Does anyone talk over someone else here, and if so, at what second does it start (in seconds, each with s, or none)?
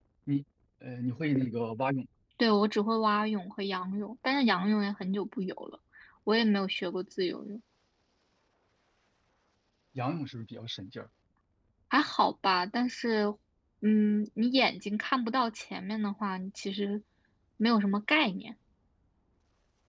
none